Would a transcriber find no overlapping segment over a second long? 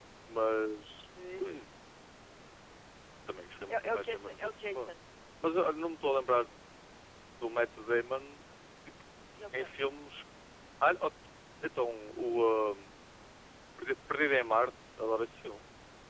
No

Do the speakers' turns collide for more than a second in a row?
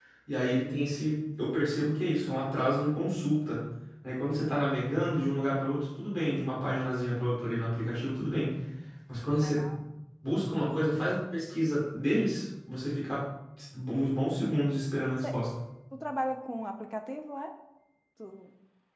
No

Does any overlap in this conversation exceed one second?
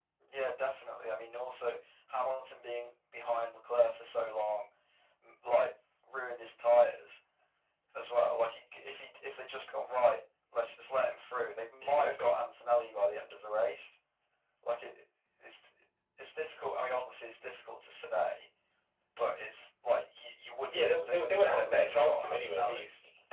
Yes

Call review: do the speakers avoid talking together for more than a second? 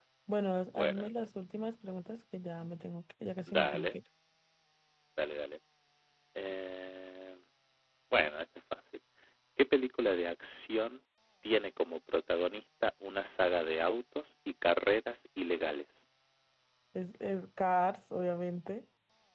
Yes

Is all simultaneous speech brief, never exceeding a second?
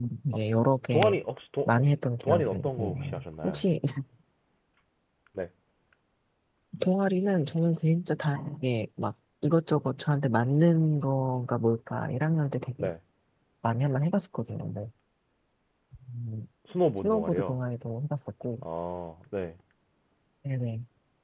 No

